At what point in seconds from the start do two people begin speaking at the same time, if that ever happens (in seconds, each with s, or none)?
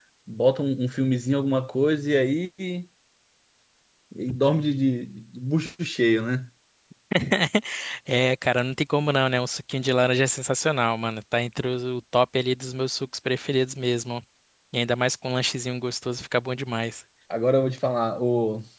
none